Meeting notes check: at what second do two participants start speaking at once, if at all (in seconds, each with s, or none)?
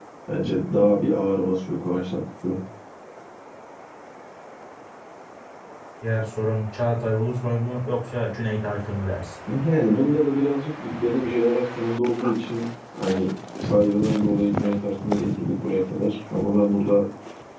none